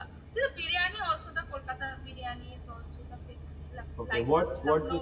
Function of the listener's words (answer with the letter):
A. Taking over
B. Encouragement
A